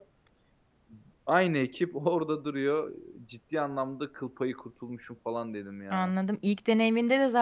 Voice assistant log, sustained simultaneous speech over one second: none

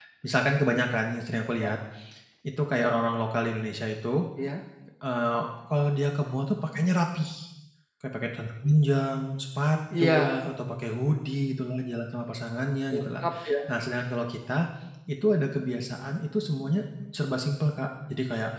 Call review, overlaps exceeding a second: none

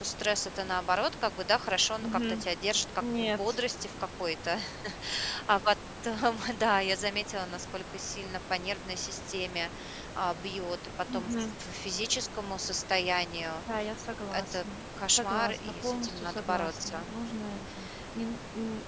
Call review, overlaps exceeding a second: present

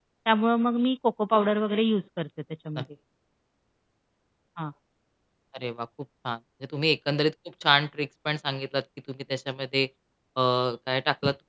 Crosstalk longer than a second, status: none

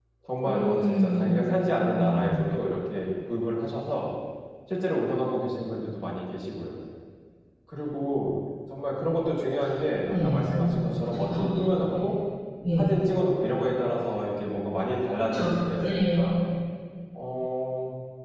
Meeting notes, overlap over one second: present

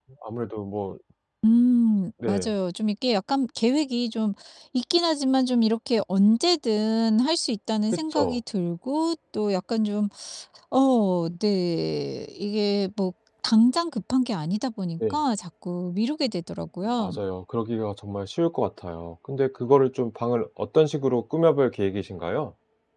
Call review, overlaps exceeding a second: none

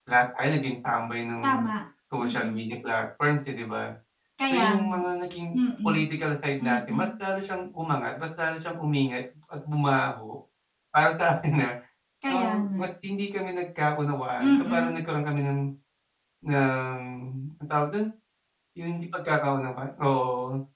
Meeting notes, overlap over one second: none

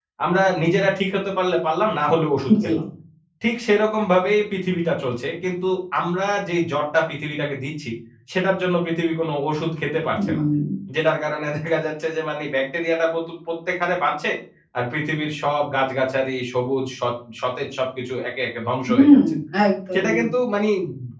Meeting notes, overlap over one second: none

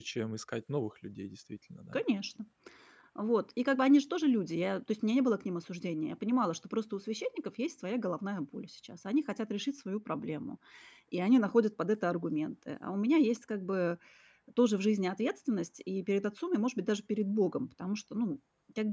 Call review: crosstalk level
none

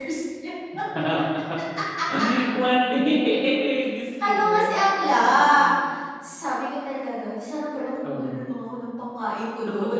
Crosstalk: present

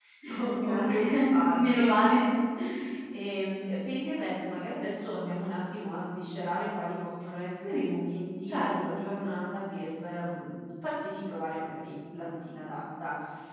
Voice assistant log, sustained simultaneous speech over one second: present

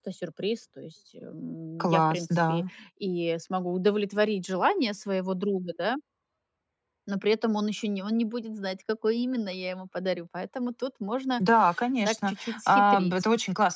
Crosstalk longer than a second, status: present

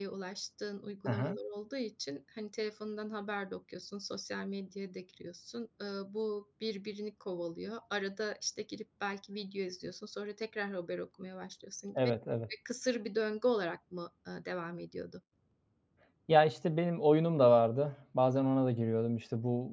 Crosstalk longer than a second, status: none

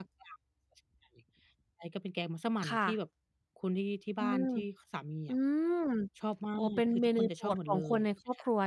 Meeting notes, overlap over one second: present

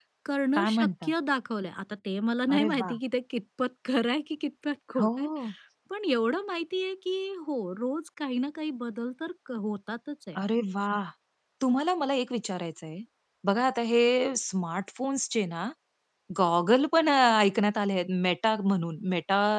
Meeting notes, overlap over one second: none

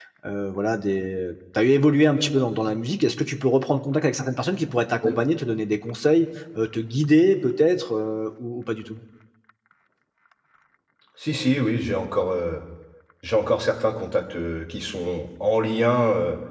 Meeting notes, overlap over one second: none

